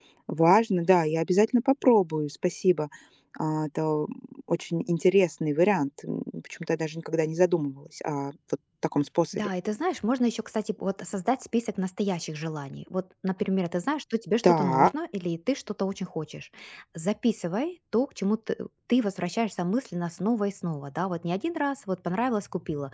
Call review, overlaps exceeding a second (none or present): none